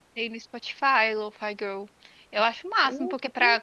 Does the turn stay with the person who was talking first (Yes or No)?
Yes